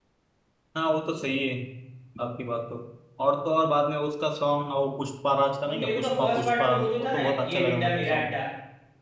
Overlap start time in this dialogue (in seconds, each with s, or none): 5.7 s